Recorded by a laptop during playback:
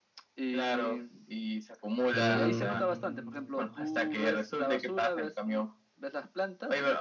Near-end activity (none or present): present